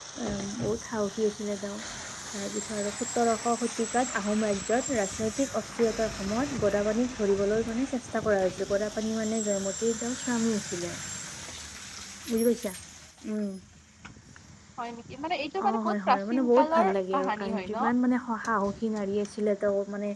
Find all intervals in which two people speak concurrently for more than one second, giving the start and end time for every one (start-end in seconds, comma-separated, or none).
15.7-17.9